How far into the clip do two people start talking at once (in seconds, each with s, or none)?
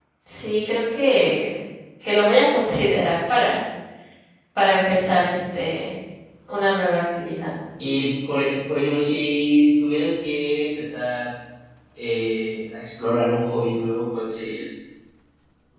none